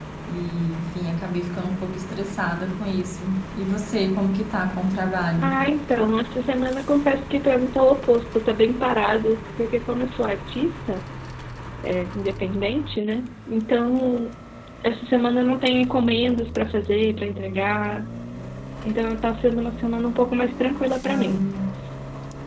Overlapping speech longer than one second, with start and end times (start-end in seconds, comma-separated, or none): none